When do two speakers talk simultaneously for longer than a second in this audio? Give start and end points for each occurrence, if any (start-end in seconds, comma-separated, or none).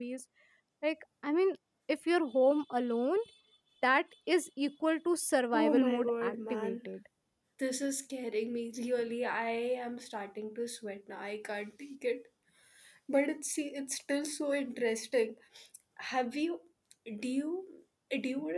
5.5-6.9